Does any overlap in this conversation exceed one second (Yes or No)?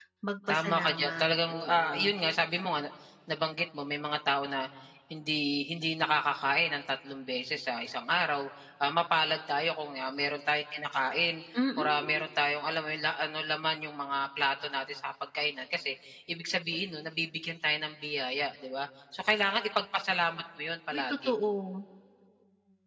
Yes